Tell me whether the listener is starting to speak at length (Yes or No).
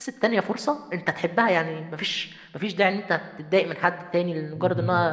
No